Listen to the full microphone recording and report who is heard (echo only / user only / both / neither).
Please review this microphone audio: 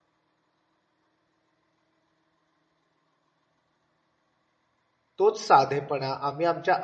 user only